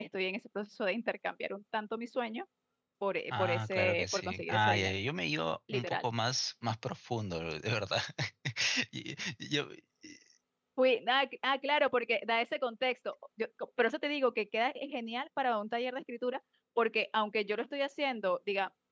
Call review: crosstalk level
present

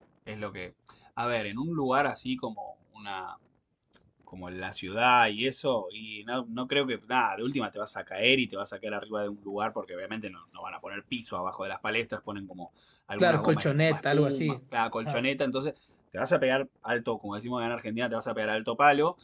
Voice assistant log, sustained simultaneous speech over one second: present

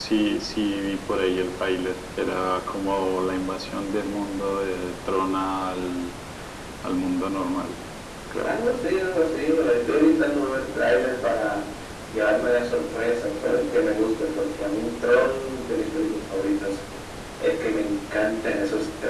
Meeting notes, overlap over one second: none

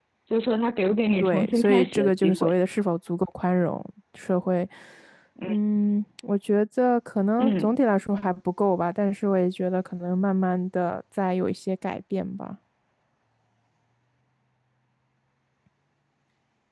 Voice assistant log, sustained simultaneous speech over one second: present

